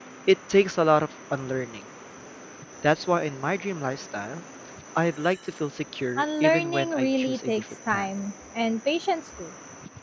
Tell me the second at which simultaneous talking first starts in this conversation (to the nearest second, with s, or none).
6 s